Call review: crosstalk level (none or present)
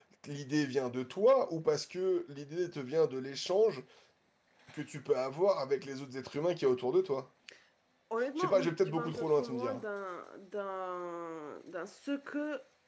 present